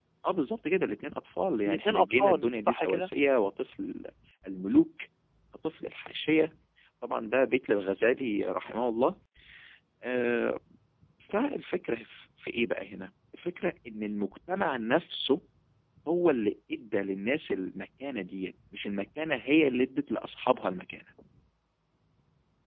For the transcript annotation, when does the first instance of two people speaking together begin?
1.6 s

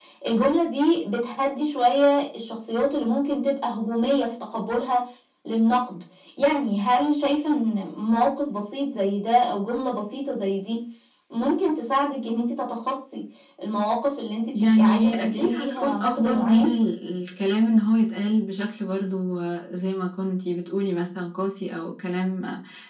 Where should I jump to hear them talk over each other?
14.5 s

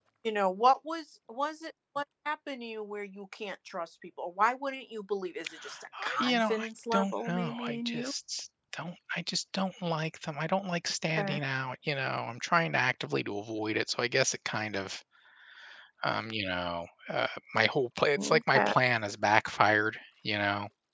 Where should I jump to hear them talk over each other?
6.0 s

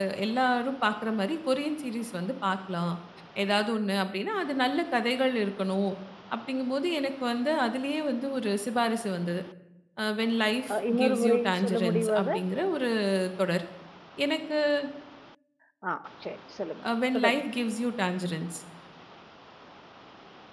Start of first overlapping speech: 10.7 s

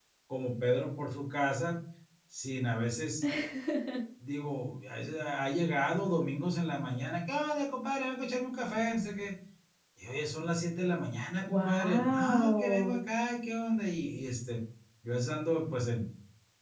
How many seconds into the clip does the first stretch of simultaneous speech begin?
11.5 s

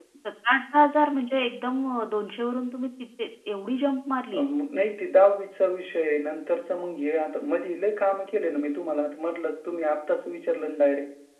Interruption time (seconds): none

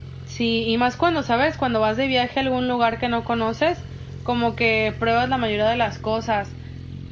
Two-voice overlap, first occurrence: none

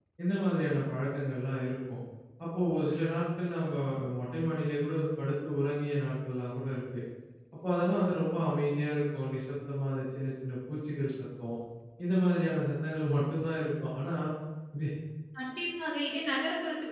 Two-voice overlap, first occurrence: none

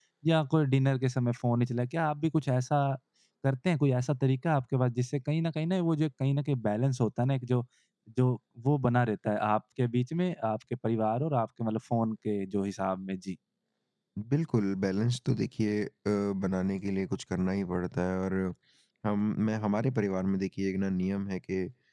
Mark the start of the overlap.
none

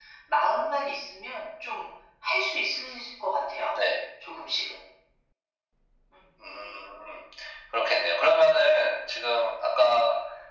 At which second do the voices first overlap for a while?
none

